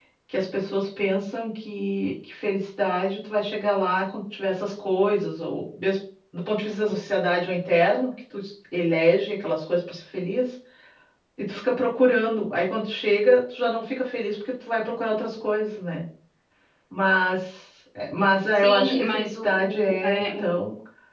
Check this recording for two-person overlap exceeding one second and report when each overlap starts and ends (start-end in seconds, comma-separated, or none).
18.5-20.5